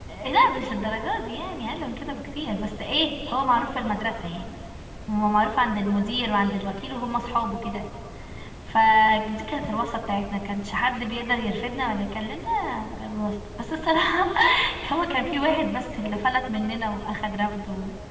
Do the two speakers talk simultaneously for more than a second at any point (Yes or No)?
No